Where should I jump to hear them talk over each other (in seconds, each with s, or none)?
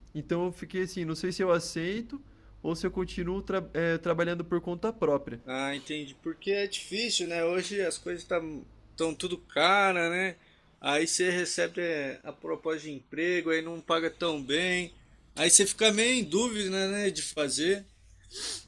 none